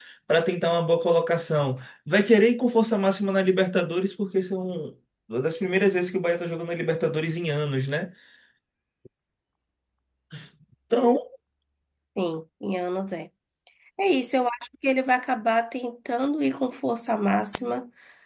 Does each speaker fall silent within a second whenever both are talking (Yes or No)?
Yes